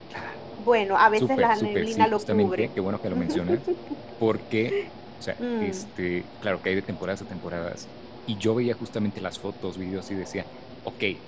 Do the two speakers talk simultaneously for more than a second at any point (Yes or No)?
Yes